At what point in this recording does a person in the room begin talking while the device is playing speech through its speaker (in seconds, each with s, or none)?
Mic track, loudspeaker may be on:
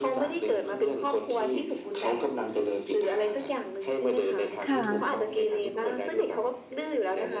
4.6 s